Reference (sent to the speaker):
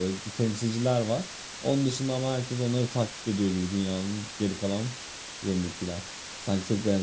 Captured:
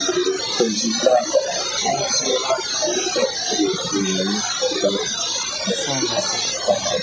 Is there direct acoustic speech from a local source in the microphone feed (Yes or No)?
Yes